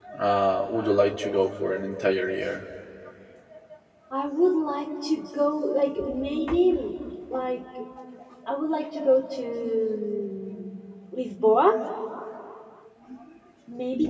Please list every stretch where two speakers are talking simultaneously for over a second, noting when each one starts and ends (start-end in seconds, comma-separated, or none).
none